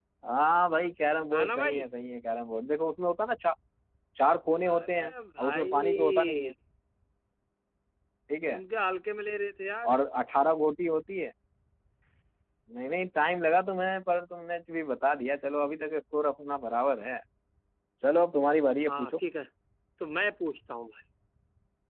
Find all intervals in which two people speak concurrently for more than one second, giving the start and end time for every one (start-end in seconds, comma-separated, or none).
4.7-6.5